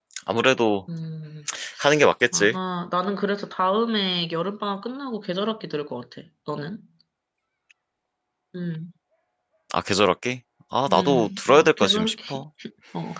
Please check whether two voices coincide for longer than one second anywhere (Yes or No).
Yes